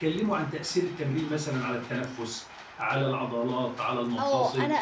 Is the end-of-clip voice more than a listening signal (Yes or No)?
Yes